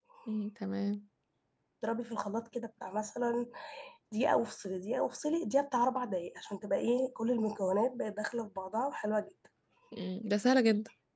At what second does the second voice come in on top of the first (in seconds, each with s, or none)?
none